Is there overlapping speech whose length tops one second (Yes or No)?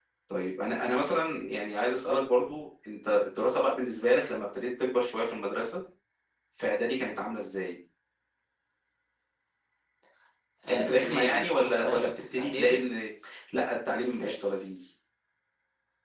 Yes